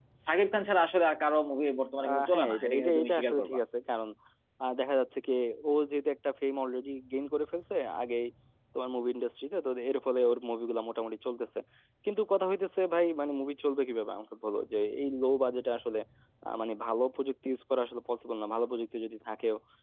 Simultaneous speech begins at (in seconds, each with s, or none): 2.0 s